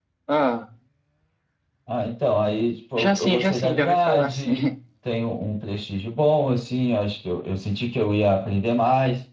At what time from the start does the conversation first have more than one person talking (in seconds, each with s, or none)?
3.0 s